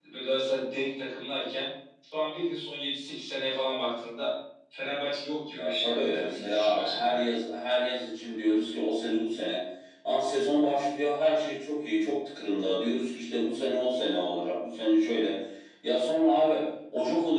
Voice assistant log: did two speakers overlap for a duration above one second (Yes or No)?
Yes